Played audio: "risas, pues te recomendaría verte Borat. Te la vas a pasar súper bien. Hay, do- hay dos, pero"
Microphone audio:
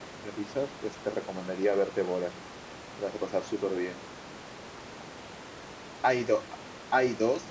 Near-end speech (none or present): none